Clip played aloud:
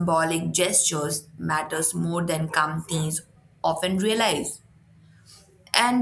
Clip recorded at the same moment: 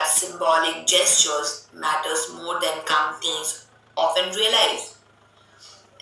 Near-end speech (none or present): none